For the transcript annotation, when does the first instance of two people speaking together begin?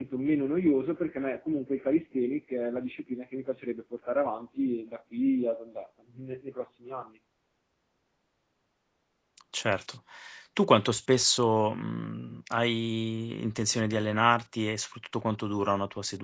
none

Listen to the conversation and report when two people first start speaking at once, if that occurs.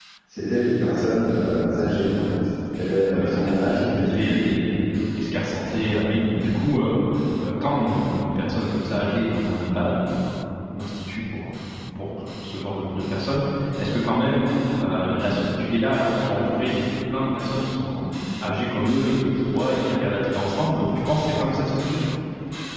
3 s

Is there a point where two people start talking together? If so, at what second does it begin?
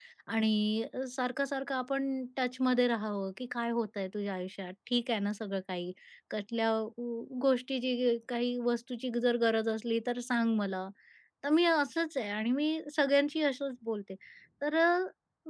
none

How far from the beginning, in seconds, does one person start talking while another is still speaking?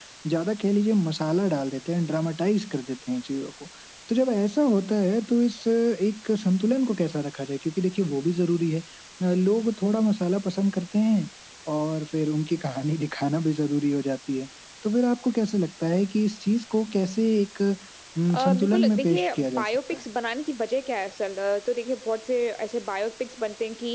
18 s

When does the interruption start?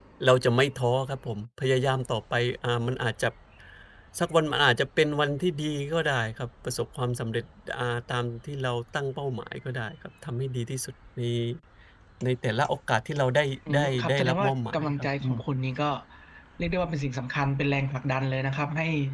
14 s

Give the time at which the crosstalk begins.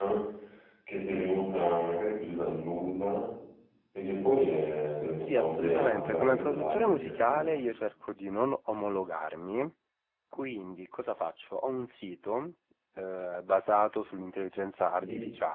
5 s

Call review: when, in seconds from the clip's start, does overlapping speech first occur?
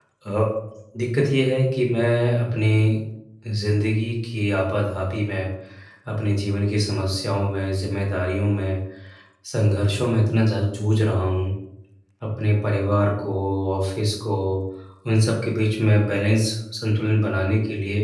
none

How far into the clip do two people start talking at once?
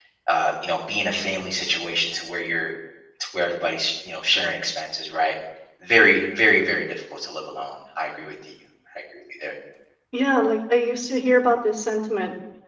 none

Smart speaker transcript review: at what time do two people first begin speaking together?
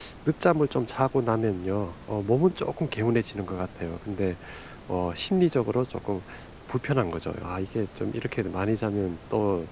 none

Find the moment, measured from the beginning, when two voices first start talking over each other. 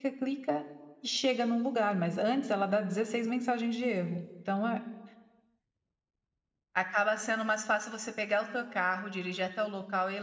none

